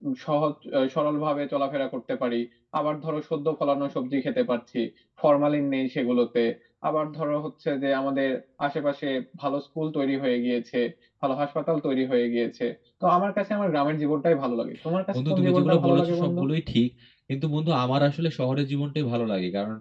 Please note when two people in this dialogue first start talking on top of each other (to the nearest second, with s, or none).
15 s